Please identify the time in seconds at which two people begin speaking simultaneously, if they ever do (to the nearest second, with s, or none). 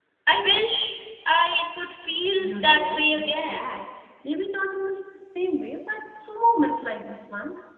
2 s